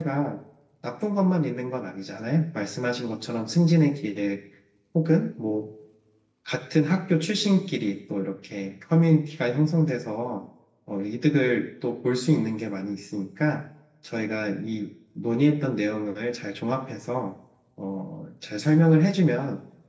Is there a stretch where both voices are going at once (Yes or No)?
No